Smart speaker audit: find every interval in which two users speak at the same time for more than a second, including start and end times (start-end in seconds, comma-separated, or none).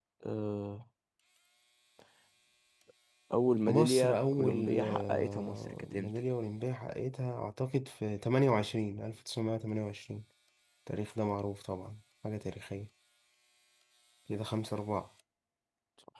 3.7-6.2